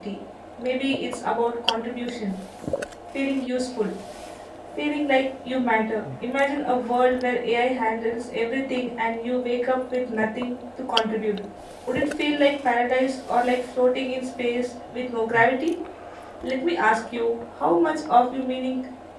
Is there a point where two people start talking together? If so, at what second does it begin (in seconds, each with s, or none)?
none